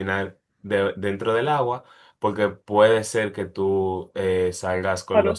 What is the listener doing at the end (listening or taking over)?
taking over